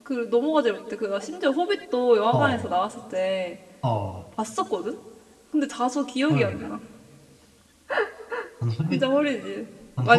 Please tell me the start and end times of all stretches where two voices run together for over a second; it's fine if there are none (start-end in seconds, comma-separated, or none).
none